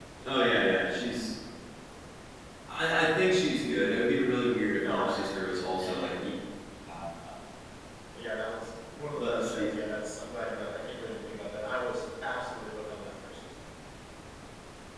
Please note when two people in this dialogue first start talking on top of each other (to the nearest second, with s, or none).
5 s